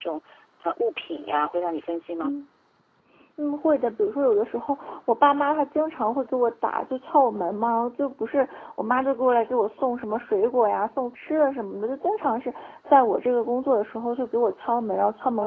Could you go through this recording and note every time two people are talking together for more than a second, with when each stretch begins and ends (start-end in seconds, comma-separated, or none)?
none